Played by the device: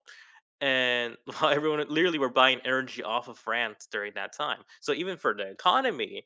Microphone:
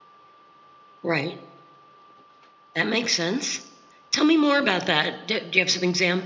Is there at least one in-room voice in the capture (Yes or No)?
Yes